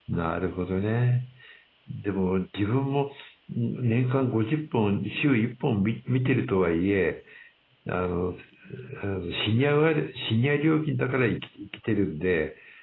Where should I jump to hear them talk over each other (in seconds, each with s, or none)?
none